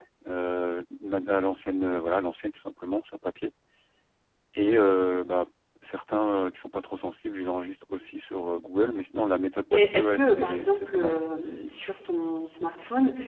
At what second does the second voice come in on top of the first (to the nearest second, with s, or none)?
10 s